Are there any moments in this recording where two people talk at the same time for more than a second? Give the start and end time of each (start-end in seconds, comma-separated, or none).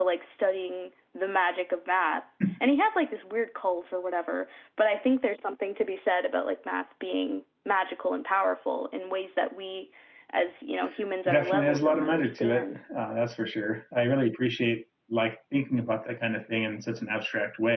11.3-12.8